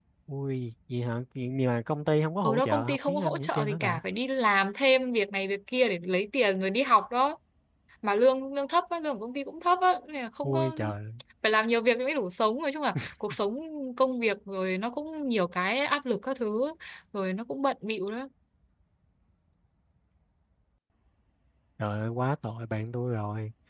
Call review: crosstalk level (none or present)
present